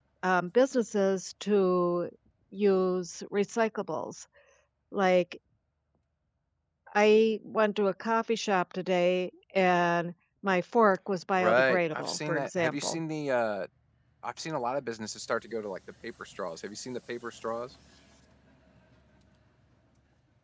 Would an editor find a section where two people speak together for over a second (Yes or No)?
Yes